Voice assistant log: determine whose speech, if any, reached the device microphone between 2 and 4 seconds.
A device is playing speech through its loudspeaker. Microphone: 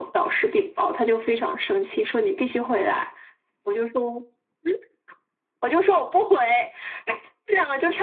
echo only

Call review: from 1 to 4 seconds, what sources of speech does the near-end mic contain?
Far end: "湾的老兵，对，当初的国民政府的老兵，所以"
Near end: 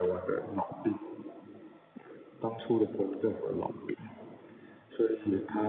echo only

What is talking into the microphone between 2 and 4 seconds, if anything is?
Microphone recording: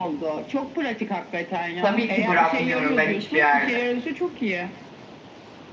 both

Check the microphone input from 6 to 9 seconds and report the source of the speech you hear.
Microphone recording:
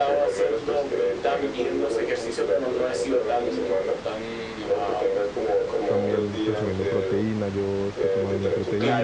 both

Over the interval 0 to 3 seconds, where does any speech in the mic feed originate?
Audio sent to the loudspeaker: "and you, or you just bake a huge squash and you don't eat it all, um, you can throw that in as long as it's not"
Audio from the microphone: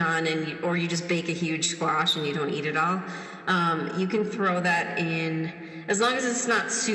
echo only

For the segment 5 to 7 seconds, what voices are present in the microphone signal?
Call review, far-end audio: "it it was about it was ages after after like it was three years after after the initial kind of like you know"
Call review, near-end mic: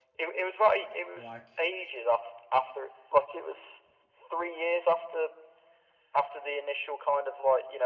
echo only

